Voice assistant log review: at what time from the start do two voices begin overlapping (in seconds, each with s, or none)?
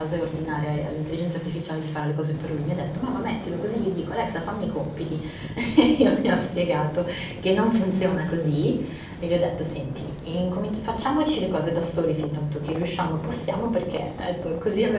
none